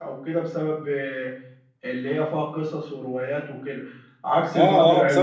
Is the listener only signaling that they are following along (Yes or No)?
No